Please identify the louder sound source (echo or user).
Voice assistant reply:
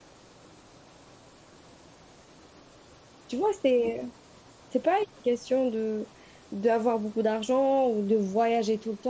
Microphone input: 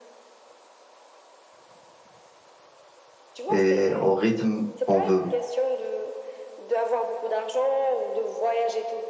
user